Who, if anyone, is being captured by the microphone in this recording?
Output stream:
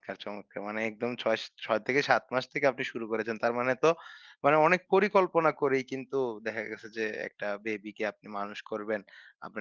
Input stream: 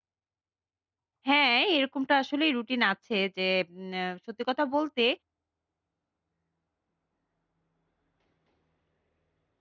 user only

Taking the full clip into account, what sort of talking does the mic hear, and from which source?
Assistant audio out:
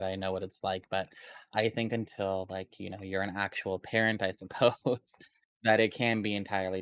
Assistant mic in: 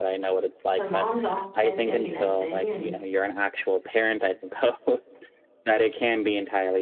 both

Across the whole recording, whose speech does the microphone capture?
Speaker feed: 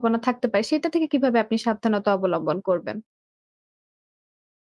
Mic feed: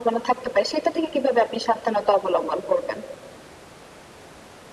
echo only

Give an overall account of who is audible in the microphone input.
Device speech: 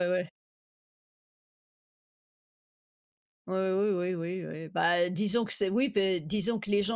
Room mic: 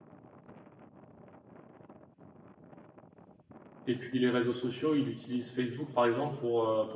user only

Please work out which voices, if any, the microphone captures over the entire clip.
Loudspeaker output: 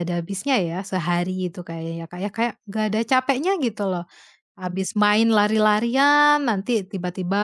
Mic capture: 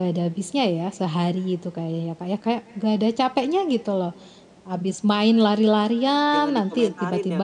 both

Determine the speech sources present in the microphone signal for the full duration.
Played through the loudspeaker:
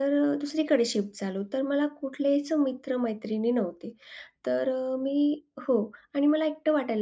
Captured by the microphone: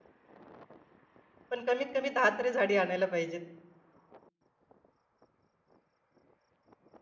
user only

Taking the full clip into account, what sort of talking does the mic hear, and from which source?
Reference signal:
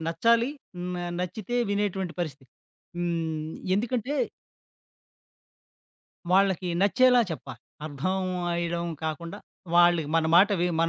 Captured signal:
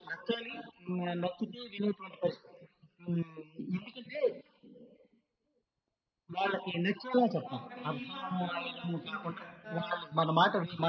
both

